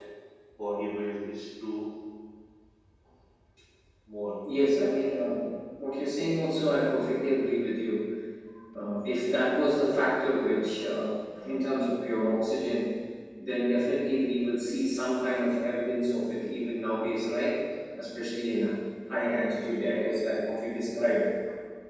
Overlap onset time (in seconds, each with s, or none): none